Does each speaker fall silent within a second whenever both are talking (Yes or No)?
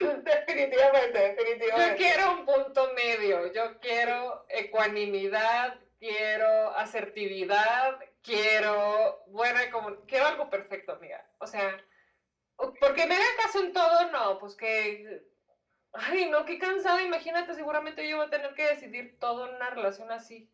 Yes